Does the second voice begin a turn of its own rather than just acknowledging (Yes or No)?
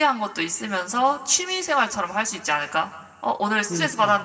No